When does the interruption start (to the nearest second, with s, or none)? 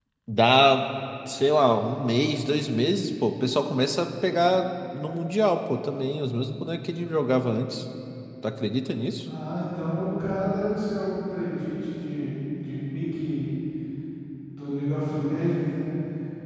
none